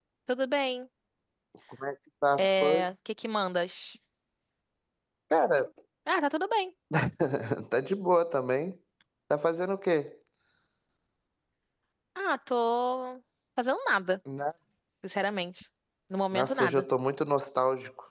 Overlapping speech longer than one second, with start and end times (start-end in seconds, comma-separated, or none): none